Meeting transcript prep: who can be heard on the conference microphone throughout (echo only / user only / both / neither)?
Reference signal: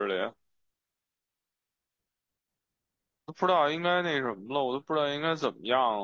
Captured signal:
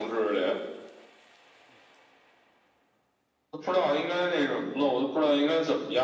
echo only